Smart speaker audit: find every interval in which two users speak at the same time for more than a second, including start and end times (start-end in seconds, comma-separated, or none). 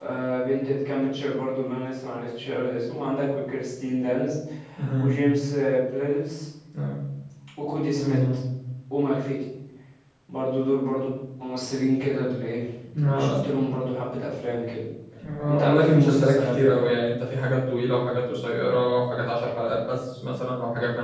15.5-17.0